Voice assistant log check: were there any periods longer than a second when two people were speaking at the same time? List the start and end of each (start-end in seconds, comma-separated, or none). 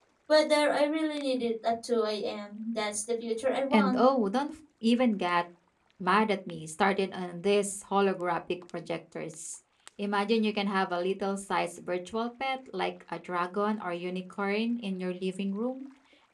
none